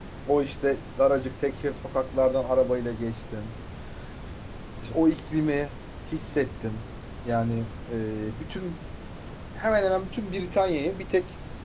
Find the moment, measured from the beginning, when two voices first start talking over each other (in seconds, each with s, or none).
none